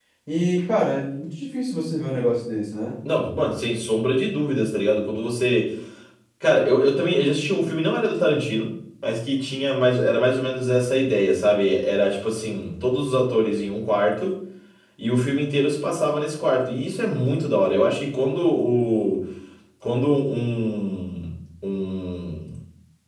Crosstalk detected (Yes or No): No